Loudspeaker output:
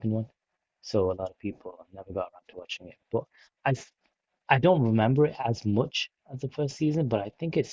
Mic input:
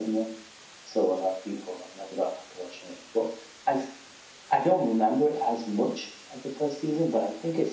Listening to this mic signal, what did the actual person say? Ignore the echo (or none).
none